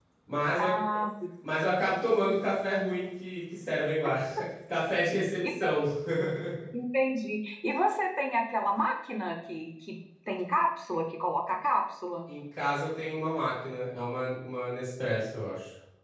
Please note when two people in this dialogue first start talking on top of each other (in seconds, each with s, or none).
none